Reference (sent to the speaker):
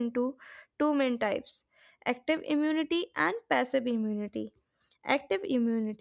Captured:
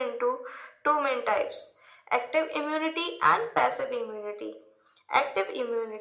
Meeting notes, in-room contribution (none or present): none